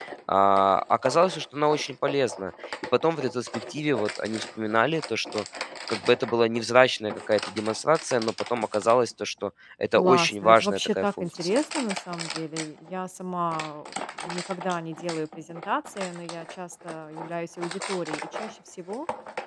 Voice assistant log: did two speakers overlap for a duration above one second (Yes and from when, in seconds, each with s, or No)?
Yes, from 10.0 s